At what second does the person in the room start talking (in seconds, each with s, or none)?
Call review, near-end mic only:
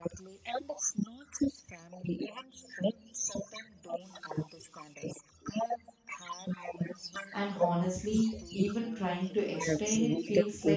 7.3 s